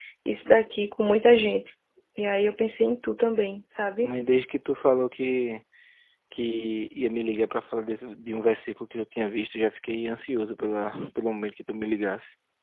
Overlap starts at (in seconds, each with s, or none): none